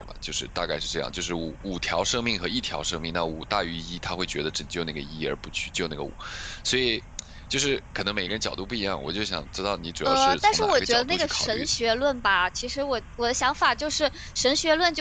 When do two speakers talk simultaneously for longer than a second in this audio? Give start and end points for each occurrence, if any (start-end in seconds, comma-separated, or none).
10.0-11.7